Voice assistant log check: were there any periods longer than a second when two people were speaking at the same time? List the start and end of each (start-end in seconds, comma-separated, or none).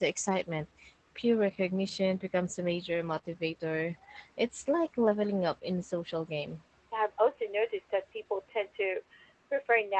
none